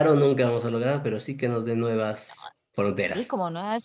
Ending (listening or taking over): taking over